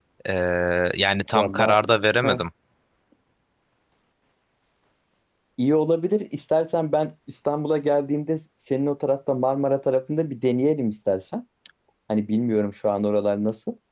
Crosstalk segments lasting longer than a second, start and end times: none

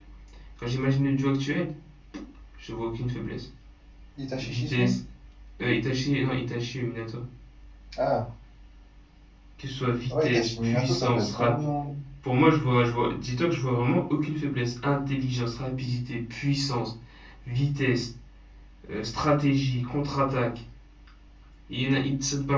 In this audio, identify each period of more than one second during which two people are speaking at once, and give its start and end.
10.1-11.6

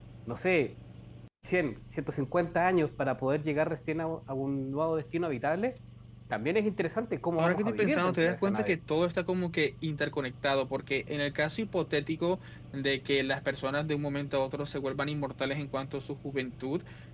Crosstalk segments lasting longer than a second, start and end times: 7.4-8.8

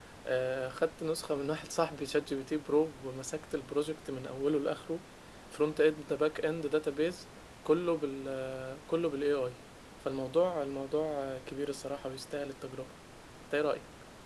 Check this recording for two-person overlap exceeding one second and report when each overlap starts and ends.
none

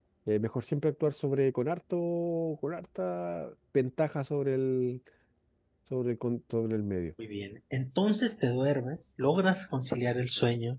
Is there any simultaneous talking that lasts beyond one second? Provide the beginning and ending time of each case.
none

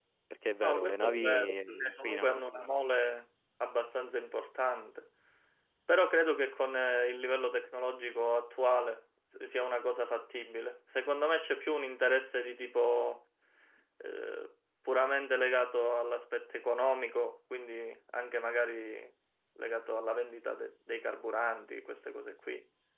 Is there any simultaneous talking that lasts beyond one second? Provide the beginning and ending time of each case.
0.6-2.4

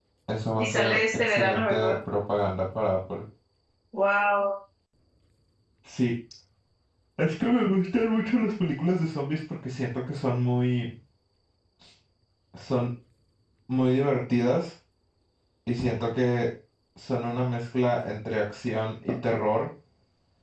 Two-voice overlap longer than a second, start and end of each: 0.6-2.0

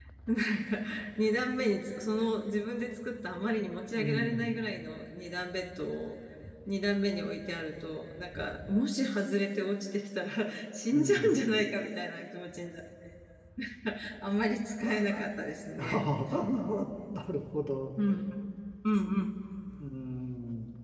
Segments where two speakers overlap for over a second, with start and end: none

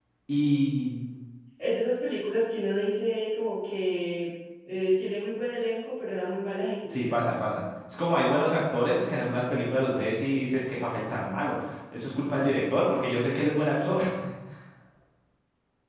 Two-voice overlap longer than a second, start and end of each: none

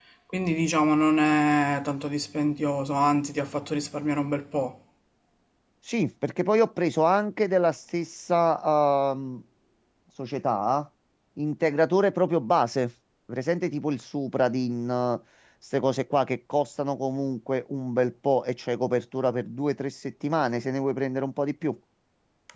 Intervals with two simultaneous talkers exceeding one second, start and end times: none

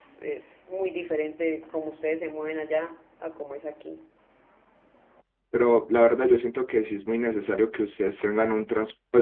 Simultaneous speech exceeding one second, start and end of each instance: none

